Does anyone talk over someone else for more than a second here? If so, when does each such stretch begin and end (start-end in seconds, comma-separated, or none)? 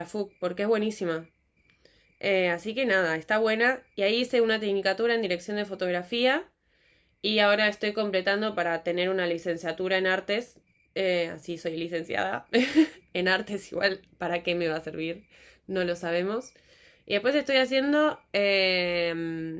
none